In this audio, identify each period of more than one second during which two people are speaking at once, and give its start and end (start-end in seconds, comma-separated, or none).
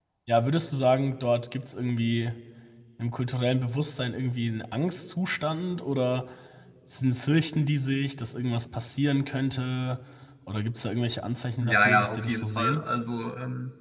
11.6-12.8